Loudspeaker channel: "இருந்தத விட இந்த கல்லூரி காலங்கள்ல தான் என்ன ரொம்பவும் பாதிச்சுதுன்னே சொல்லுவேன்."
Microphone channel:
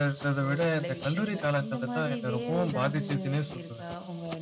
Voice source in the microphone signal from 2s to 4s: both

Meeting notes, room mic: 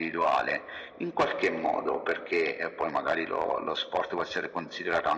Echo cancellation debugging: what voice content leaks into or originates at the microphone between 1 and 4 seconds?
echo only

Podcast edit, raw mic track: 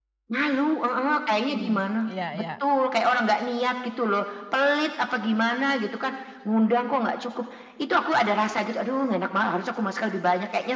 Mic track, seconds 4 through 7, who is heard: echo only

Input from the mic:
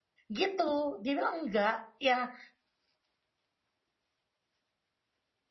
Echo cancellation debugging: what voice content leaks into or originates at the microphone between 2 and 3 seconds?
user only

